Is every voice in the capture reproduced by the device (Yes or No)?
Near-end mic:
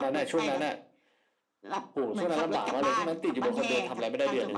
Yes